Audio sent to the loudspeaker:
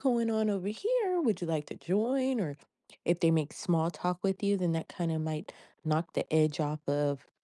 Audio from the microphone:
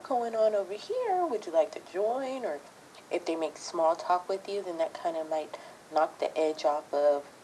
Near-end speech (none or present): none